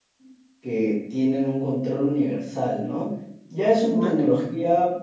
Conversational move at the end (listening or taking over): listening